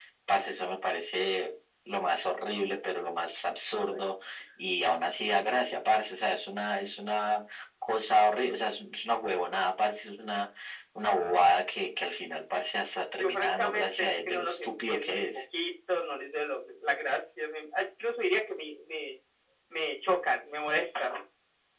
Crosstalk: present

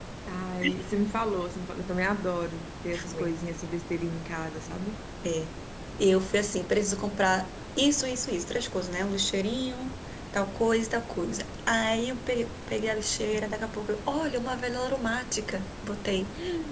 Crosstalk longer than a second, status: none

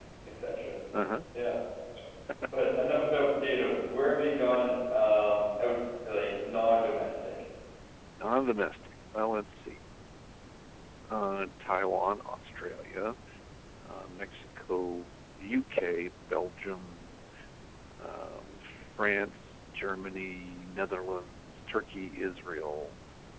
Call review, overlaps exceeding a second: none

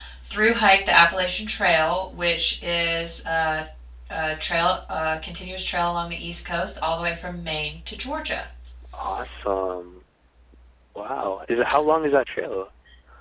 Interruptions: none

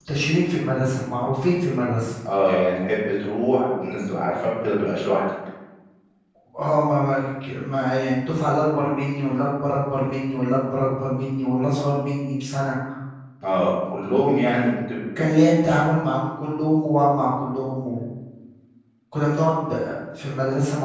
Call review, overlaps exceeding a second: none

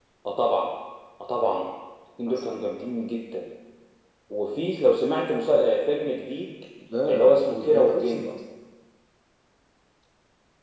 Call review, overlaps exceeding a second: present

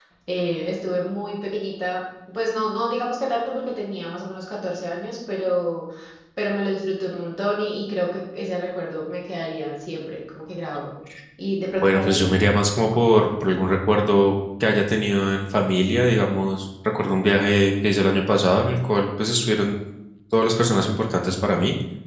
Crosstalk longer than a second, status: none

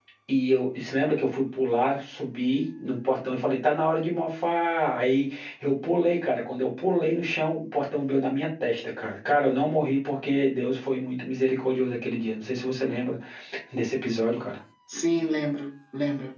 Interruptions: none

